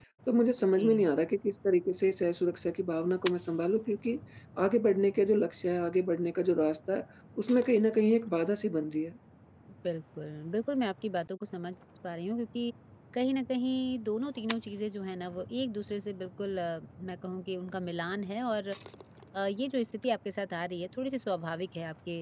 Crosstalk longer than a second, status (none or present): none